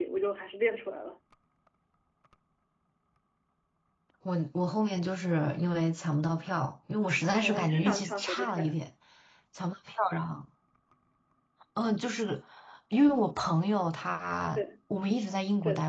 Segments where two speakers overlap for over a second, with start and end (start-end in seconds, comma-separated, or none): 7.4-8.8